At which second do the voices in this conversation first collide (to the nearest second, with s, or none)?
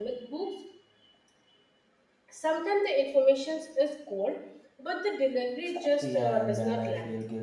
6 s